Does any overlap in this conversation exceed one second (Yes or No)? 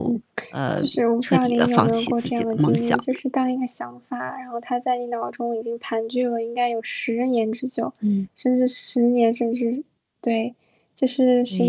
Yes